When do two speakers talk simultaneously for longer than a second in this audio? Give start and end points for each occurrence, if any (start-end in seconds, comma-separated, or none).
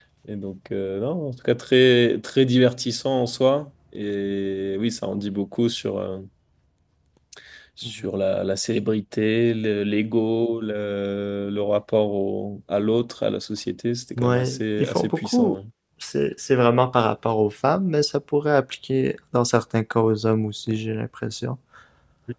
14.2-15.6